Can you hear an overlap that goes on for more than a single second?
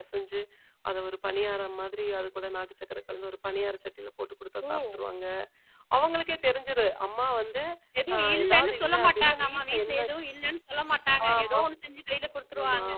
Yes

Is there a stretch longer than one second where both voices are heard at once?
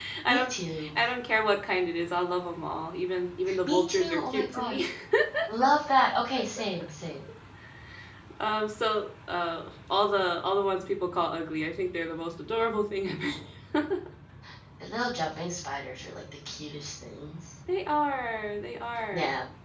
Yes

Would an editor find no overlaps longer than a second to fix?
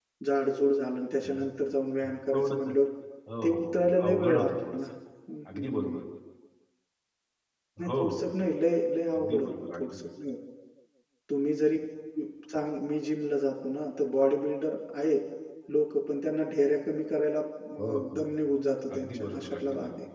No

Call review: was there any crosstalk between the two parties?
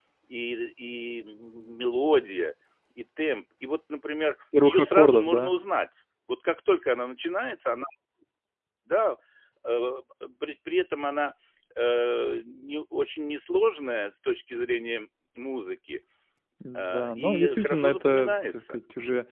Yes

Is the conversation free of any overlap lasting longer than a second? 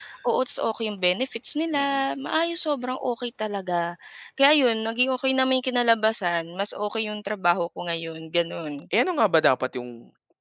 Yes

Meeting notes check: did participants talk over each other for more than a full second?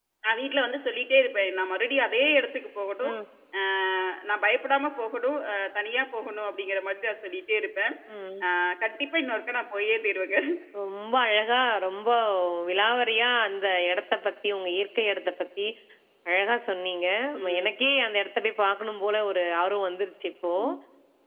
No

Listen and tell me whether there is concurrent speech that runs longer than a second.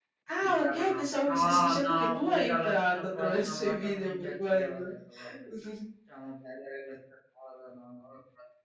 Yes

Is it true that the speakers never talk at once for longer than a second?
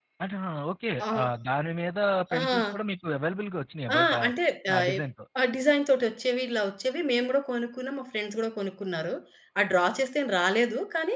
Yes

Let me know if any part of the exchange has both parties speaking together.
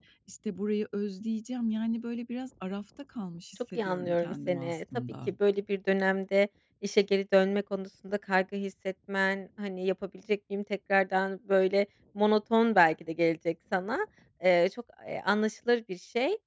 Yes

